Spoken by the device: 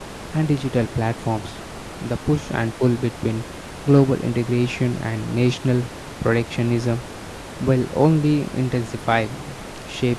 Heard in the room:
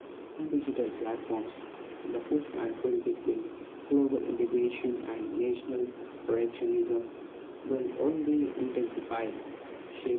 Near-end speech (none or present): none